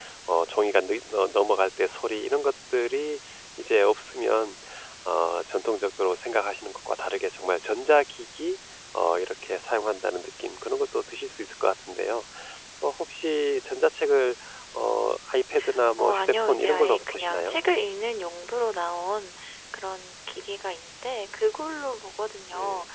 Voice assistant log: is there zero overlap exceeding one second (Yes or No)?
No